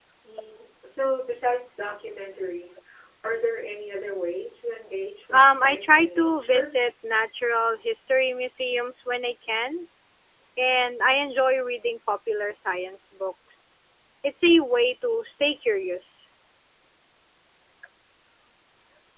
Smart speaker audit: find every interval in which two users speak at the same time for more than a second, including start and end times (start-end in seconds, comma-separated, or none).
5.3-6.7